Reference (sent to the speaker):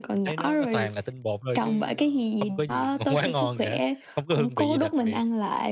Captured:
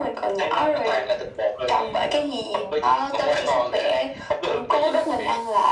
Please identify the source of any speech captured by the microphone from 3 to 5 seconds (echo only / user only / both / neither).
echo only